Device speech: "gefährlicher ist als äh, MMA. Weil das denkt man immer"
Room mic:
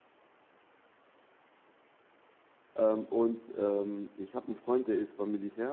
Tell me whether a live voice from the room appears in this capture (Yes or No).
Yes